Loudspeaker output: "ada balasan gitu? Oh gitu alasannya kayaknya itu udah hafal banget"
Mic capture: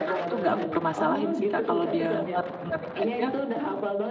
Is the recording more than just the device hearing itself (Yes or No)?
Yes